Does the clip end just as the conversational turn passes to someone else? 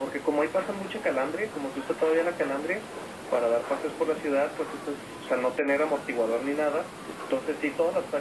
No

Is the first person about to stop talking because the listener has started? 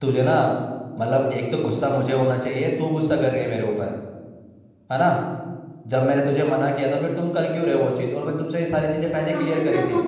Yes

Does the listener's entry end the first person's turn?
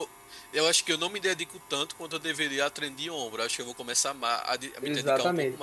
Yes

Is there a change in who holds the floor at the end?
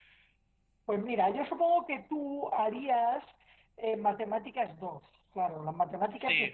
No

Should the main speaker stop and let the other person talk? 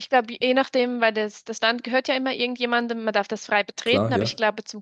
No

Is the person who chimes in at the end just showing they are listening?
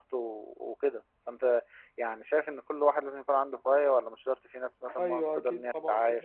No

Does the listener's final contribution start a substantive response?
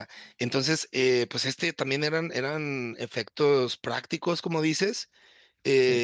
No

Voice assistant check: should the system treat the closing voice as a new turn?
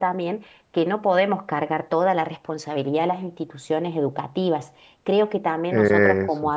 No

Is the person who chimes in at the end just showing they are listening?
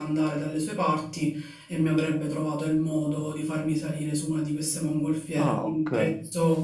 Yes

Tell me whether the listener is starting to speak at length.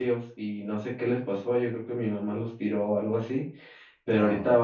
No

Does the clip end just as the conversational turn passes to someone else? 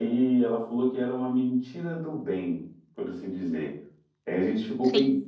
No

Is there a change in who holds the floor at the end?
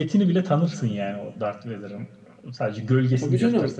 No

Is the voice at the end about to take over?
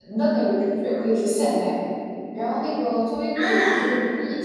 No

